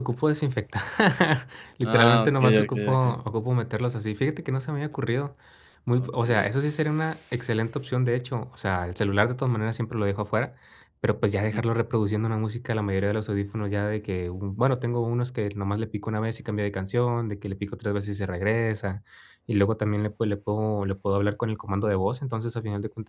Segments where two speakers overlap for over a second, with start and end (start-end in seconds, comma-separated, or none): 1.8-3.1